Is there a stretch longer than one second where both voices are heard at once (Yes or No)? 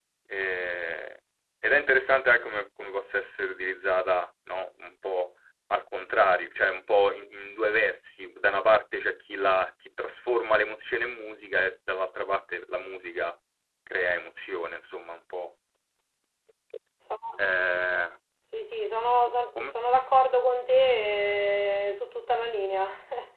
No